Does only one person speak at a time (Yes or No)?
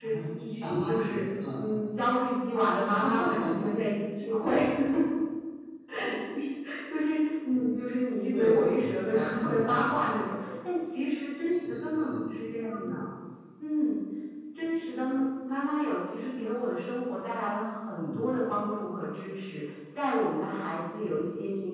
No